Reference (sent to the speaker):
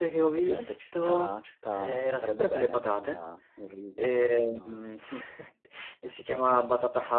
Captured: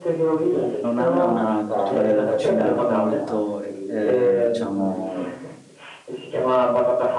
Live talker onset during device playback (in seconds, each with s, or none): 0.8 s